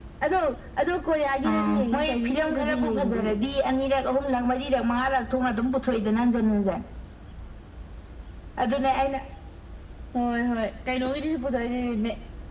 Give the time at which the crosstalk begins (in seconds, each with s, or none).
1.5 s